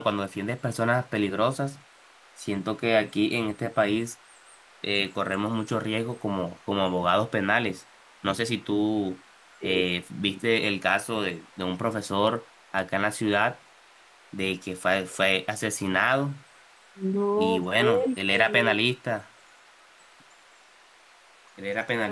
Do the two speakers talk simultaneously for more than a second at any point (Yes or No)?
Yes